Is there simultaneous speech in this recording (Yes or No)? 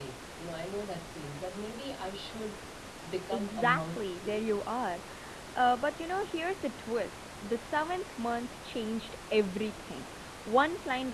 Yes